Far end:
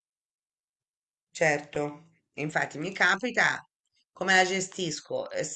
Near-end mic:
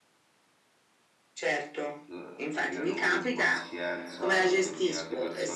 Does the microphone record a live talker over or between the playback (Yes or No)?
Yes